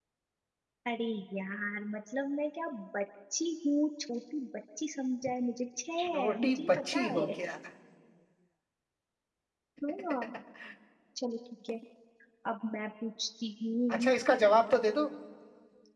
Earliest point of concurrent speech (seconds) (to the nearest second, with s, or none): 6 s